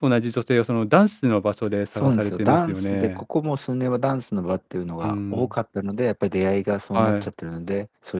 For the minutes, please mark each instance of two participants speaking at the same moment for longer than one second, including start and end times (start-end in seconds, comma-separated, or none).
1.9-3.2